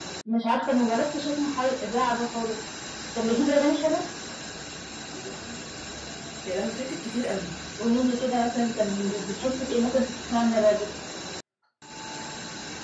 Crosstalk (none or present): none